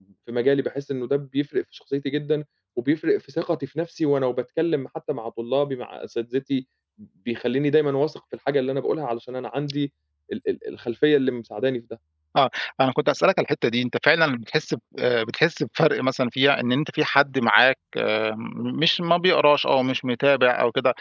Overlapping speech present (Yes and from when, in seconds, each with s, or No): No